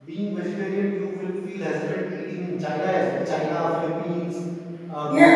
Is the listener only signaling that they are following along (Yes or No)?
Yes